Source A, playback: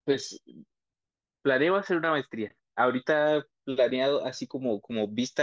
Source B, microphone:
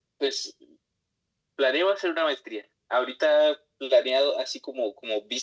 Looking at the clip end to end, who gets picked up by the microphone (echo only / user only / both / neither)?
echo only